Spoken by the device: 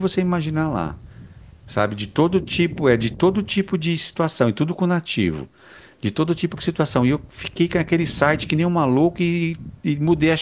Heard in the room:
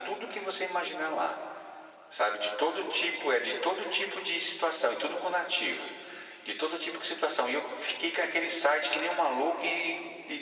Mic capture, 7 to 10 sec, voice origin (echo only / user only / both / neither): echo only